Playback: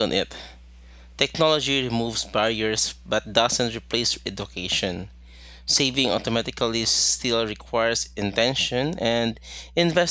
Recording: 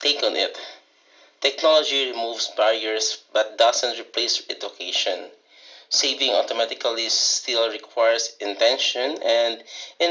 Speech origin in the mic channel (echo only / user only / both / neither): echo only